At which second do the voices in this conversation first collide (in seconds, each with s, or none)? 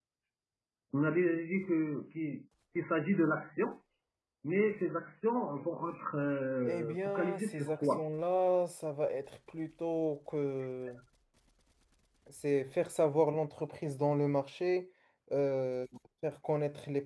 6.6 s